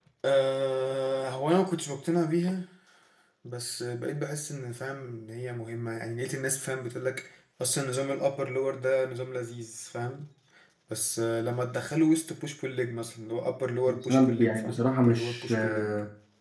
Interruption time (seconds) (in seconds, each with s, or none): 13.9 s